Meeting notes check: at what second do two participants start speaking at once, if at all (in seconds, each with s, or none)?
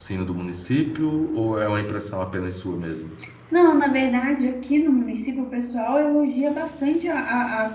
none